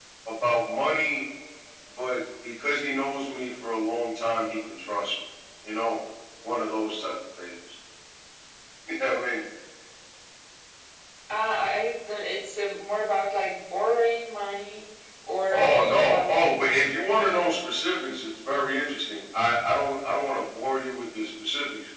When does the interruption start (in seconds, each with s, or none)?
15.5 s